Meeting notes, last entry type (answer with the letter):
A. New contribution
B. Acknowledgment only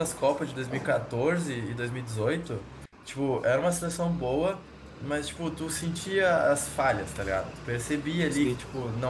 B